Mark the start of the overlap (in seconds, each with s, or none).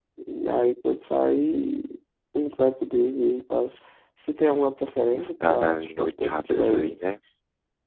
5.4 s